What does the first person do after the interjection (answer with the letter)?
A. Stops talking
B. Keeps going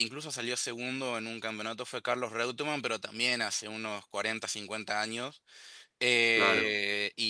B